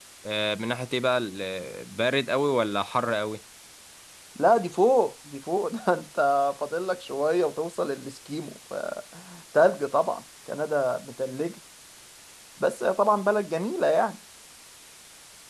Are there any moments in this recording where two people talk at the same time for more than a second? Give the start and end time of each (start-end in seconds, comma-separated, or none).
none